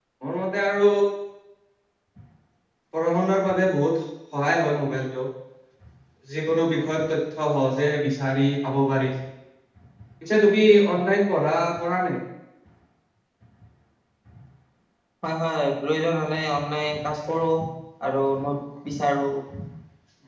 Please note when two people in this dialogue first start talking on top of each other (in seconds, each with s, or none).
none